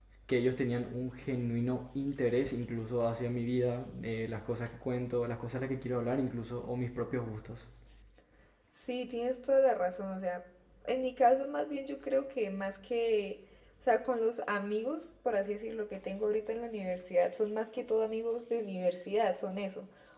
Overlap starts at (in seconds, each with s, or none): none